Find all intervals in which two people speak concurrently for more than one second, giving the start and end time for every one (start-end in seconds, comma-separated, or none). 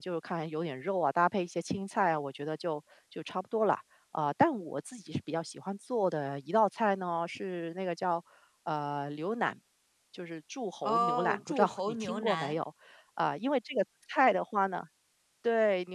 10.8-12.6